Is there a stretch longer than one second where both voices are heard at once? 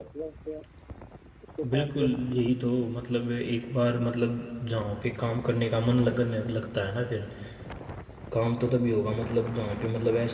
No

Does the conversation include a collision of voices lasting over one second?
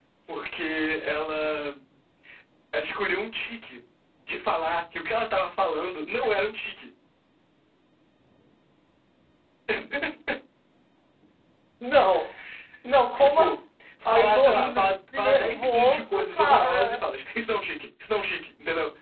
Yes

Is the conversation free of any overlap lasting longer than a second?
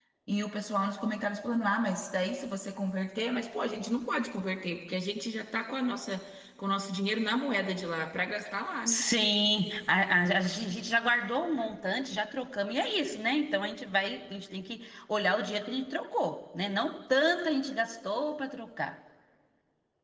Yes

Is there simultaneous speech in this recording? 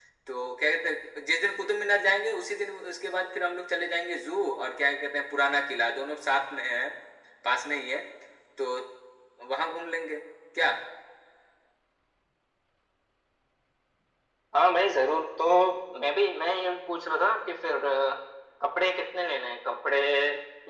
No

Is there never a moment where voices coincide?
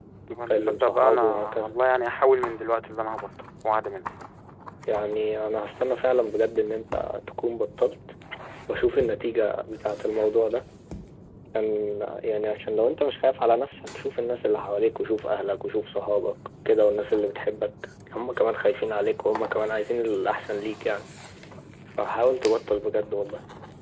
No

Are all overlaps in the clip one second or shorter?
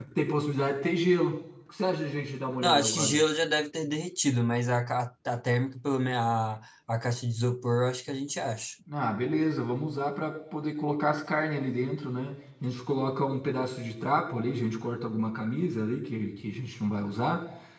Yes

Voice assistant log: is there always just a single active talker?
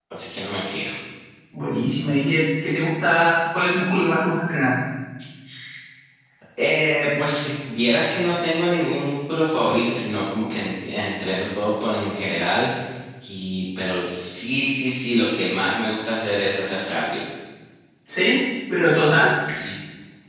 Yes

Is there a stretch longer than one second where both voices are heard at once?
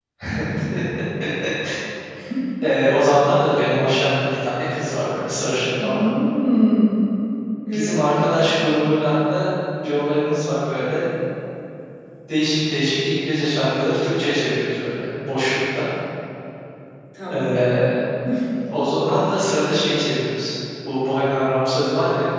No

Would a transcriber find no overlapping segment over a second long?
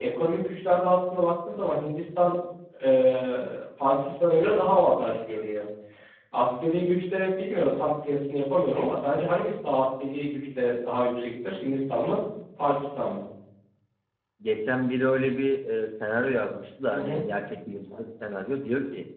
Yes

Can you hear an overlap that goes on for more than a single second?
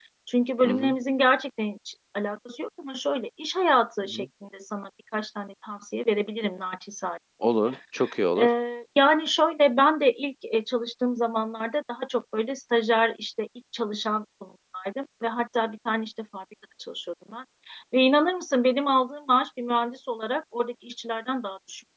No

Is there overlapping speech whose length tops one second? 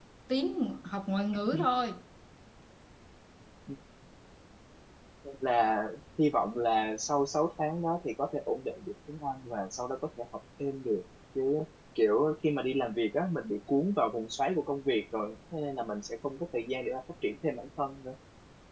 No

